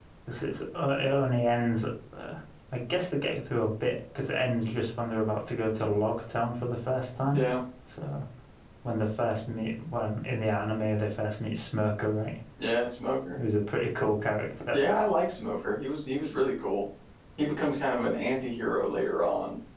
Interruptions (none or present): none